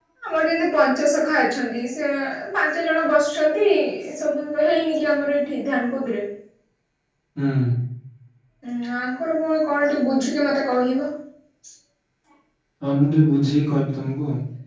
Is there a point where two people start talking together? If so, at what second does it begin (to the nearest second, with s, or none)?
none